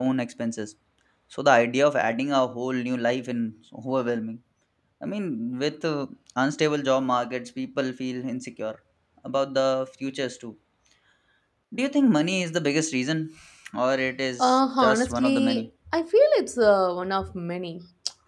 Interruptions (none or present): present